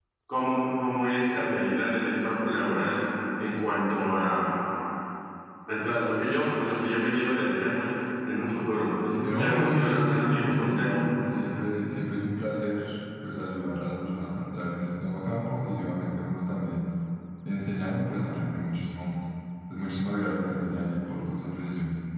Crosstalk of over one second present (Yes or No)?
Yes